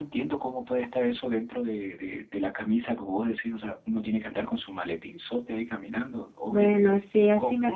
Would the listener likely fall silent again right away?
No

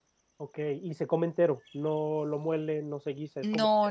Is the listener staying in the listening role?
No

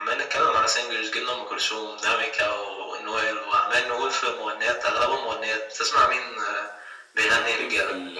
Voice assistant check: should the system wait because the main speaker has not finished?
No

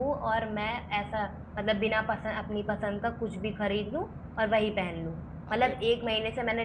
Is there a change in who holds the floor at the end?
No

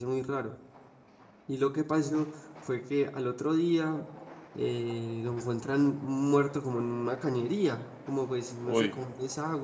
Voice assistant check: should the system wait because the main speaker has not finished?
Yes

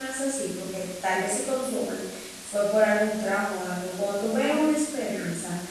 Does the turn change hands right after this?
No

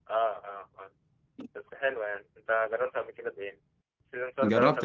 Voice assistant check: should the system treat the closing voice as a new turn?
Yes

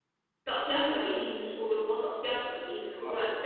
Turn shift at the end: No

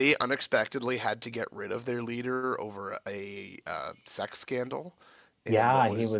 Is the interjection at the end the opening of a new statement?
Yes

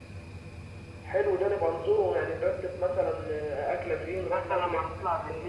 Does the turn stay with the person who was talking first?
No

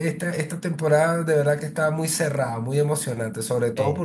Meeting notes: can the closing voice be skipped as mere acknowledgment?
Yes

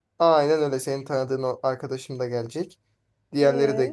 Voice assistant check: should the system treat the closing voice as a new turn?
No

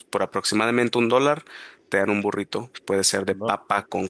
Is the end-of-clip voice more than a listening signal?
No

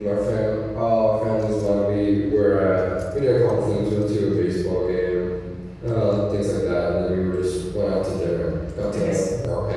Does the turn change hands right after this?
No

